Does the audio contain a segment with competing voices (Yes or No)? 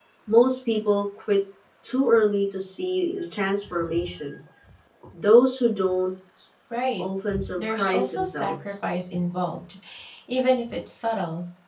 Yes